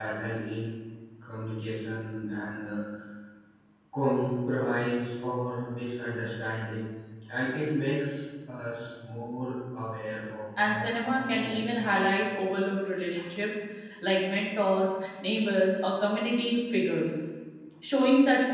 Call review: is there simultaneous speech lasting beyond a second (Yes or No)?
Yes